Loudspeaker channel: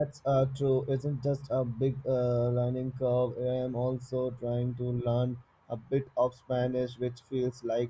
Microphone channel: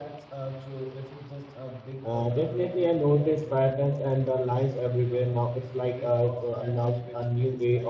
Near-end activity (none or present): present